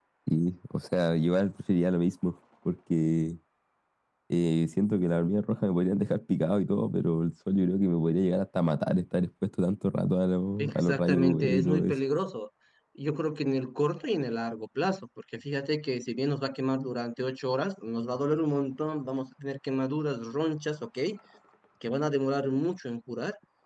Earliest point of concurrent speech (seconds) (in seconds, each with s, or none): 10.6 s